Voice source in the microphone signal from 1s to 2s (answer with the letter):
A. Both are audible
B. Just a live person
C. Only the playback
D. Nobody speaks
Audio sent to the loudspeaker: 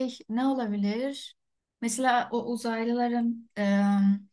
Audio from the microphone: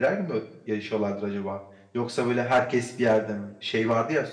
B